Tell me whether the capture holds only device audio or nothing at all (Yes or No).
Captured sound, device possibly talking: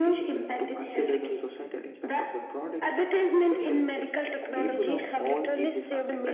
No